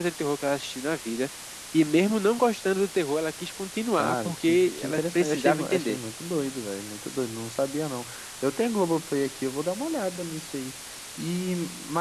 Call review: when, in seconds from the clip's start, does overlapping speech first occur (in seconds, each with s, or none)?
3.9 s